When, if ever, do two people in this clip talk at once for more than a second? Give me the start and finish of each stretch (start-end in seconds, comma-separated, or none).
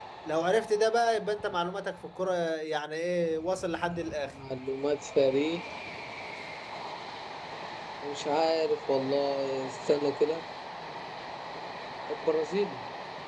none